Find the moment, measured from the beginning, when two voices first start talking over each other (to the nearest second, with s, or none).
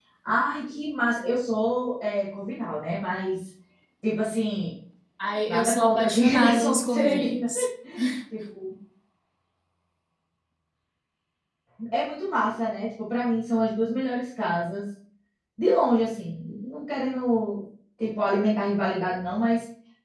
5 s